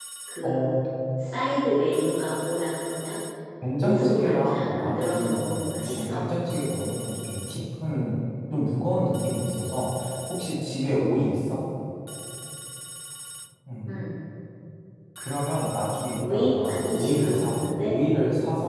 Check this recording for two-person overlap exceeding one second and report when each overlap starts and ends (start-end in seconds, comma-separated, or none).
3.8-6.2, 16.2-17.9